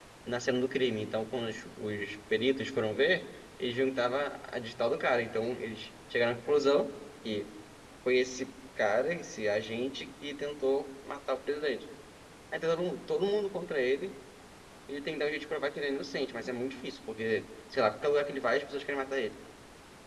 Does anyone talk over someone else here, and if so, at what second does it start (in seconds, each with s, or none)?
none